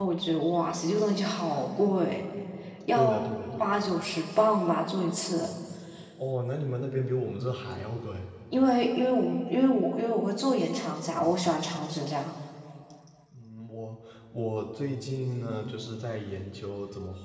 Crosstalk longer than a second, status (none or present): none